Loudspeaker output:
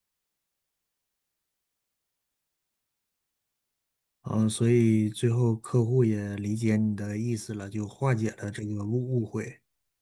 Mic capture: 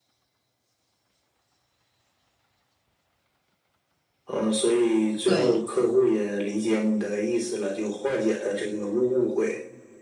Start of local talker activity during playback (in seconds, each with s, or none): 5.2 s